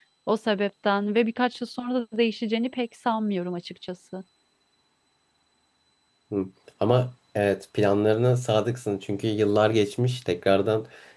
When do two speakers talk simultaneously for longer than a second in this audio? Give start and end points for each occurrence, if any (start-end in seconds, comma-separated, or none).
none